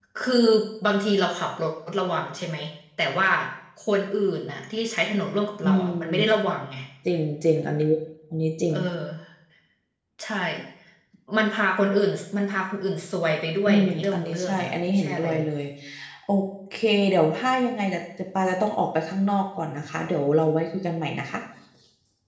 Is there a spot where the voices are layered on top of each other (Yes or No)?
Yes